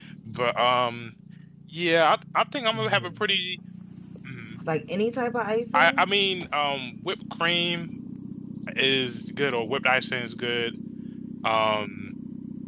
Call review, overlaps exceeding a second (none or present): none